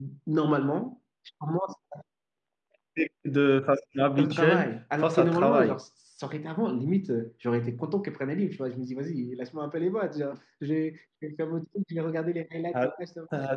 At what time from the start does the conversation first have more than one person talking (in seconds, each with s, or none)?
4.2 s